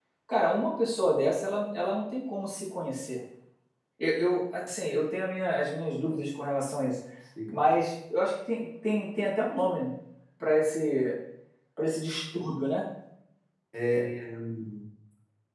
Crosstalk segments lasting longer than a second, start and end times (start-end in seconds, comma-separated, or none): none